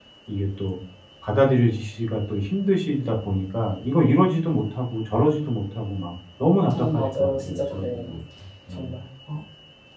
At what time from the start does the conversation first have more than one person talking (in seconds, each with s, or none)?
6.7 s